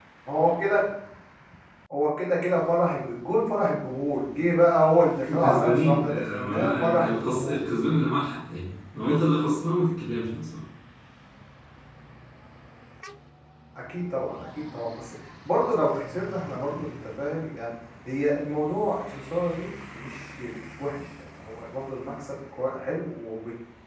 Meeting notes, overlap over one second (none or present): present